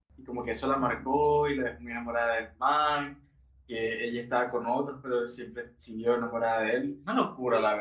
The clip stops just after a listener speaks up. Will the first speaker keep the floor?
No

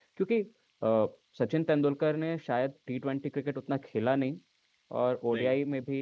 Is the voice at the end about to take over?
No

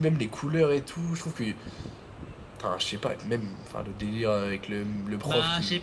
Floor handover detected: Yes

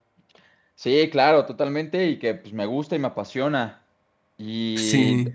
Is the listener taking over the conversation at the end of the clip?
No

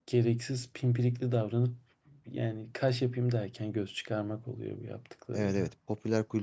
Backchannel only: No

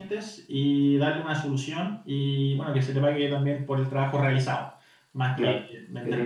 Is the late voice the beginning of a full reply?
Yes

